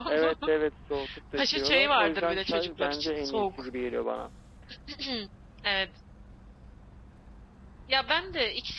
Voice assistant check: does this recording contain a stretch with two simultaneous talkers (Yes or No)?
Yes